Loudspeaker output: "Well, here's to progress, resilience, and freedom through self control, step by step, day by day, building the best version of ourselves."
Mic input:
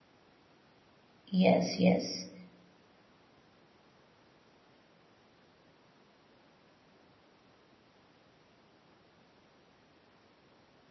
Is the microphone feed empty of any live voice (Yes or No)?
No